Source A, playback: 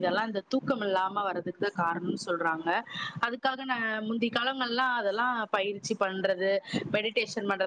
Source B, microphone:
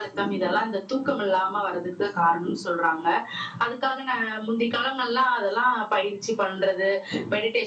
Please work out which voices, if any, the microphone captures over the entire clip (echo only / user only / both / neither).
echo only